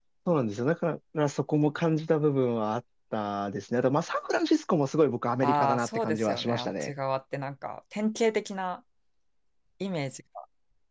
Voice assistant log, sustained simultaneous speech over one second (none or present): present